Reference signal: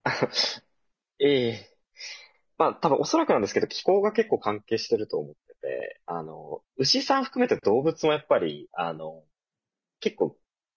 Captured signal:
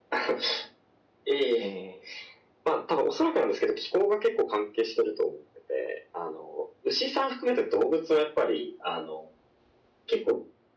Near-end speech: present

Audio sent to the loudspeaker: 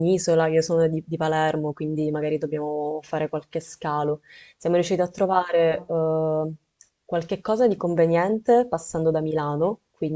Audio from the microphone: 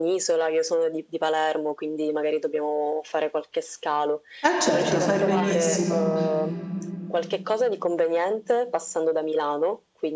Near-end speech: present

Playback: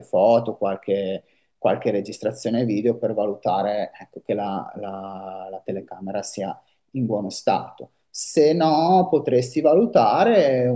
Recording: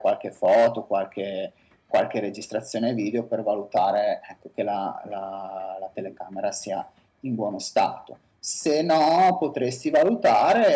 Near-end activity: none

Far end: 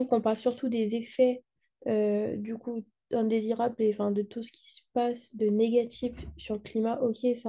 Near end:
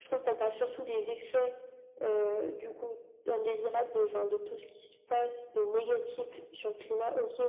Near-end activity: none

